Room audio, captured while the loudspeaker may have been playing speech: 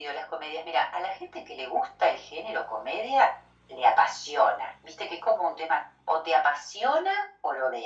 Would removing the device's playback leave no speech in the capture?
Yes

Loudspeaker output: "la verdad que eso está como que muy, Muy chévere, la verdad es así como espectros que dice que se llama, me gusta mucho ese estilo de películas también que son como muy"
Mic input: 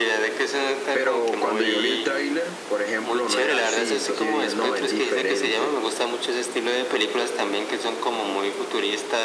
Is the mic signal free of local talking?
No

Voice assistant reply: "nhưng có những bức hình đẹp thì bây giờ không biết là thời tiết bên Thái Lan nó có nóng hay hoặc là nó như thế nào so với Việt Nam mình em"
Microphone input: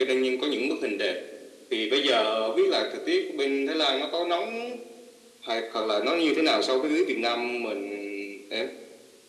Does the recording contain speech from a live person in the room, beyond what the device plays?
No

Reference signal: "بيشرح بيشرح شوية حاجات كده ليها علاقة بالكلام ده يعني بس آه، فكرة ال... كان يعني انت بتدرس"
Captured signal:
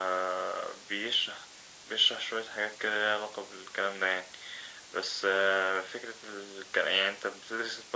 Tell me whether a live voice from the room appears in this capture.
No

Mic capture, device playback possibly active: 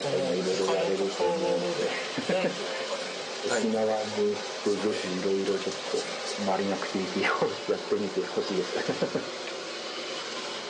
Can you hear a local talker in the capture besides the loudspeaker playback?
No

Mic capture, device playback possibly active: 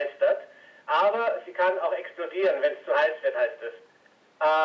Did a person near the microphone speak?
No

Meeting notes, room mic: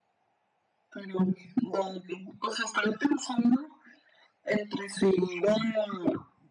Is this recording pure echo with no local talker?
Yes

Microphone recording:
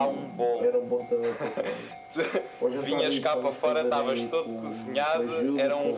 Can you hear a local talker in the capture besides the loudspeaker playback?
Yes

